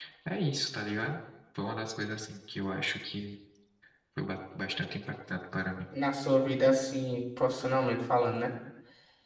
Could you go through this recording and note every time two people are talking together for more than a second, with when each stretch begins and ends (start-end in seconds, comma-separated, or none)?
none